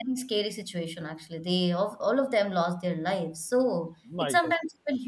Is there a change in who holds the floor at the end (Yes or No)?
No